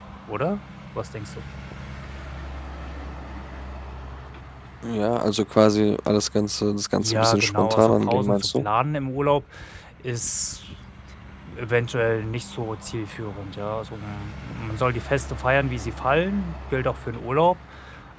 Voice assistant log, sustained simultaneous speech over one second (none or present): present